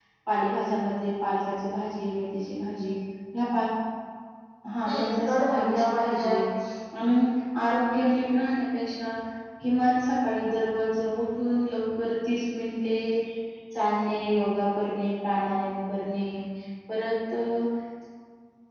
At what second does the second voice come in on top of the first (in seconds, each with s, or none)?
4.9 s